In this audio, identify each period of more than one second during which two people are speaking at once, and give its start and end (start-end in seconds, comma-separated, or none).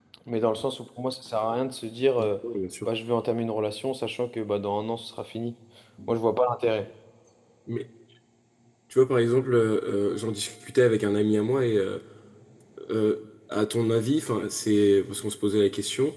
none